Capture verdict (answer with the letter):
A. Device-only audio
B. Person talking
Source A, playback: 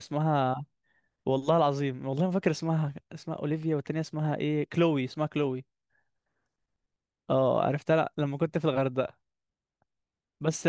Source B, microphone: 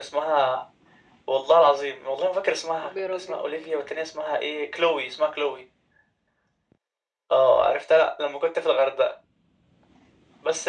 B